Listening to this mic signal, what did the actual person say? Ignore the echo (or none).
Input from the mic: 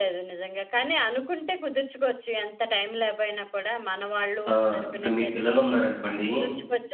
ఆహ్, ఇప్పుడు మీ పిల్లలున్నారనుకోండి